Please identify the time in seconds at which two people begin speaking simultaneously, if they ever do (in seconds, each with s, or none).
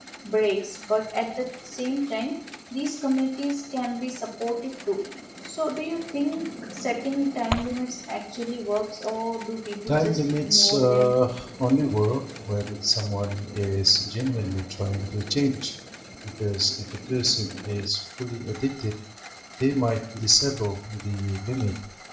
9.9 s